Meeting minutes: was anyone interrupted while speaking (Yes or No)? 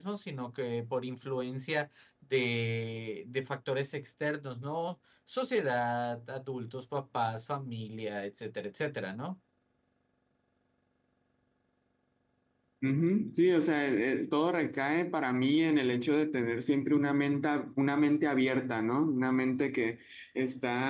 No